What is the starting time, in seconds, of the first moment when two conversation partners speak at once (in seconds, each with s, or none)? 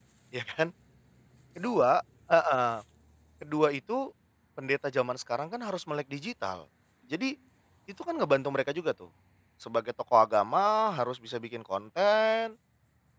none